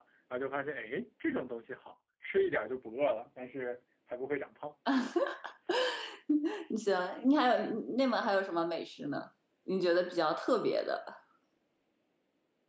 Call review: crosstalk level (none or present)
none